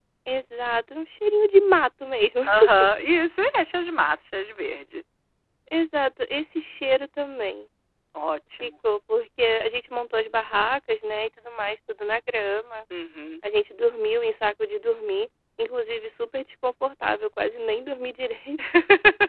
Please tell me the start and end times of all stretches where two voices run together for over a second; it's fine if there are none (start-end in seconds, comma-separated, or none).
none